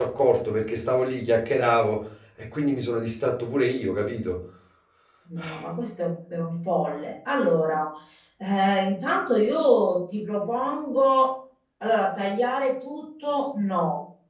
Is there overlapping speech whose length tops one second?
No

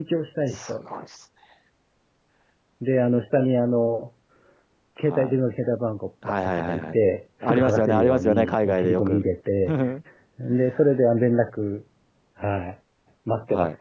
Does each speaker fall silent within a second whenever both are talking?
No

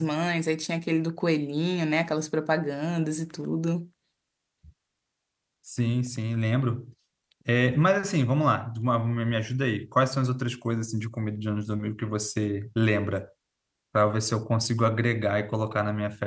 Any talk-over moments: No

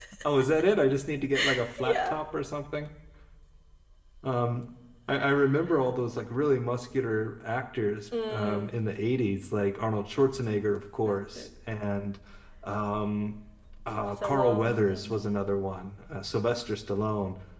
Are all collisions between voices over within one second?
No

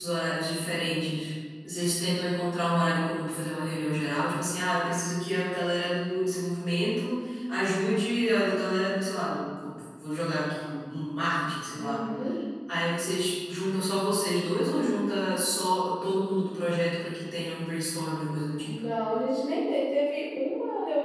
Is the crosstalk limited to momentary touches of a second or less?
Yes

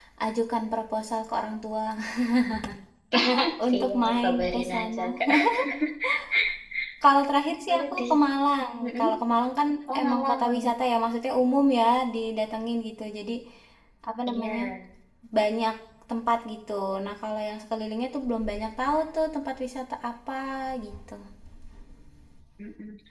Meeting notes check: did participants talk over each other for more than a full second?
Yes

